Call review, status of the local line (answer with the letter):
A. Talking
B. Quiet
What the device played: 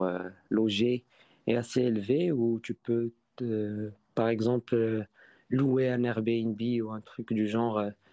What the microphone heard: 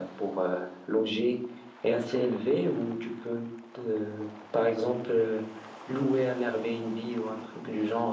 B